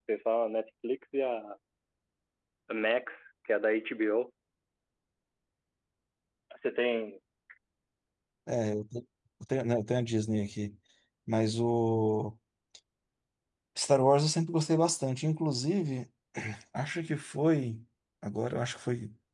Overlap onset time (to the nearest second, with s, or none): none